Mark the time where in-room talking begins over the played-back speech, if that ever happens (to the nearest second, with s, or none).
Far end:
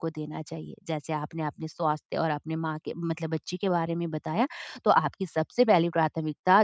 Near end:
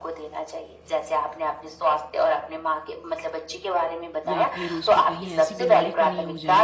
4 s